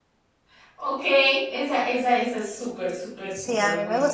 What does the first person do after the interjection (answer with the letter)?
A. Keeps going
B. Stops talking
B